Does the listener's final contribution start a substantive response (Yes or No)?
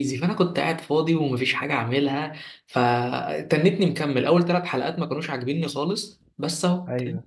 No